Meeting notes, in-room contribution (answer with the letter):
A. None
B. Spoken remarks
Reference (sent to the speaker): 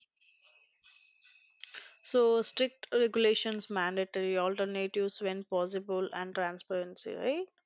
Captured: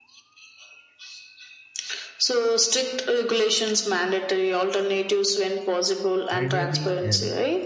B